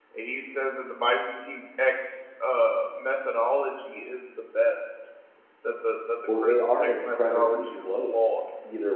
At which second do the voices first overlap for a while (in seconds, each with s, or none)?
6.3 s